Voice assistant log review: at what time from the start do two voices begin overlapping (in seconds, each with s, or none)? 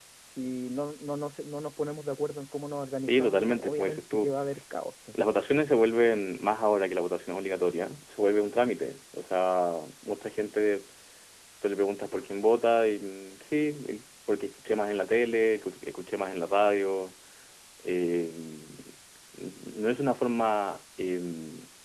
3.0 s